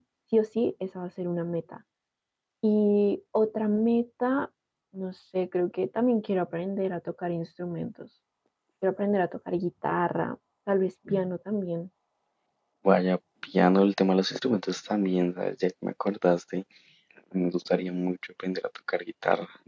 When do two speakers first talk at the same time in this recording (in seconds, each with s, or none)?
none